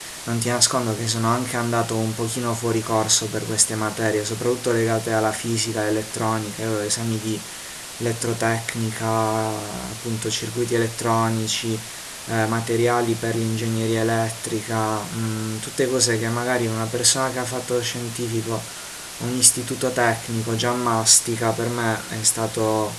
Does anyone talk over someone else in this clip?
No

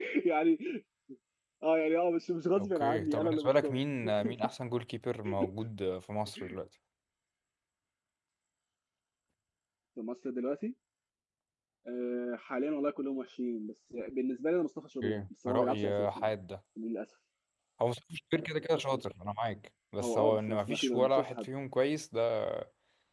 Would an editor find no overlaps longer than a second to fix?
No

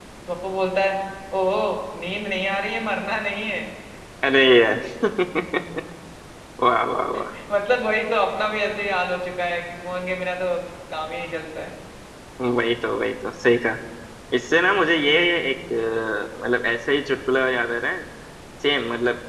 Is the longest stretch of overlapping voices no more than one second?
Yes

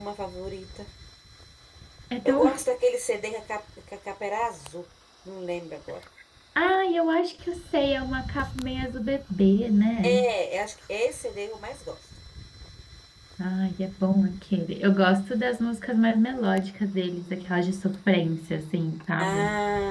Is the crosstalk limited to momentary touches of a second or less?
Yes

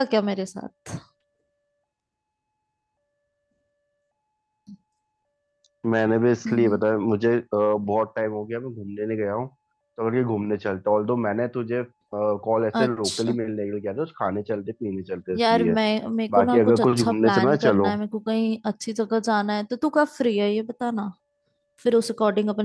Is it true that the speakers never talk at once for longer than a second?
No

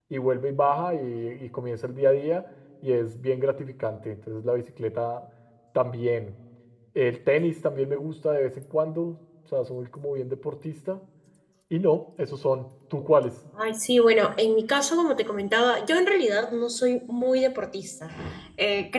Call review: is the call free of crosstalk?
Yes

